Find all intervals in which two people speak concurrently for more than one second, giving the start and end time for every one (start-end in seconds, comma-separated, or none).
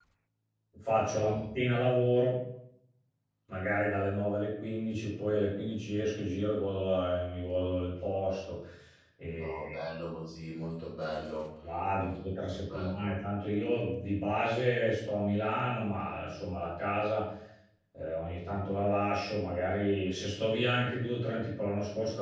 11.9-13.2